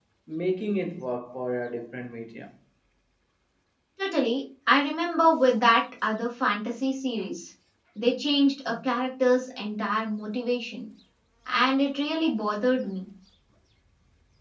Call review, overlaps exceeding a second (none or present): none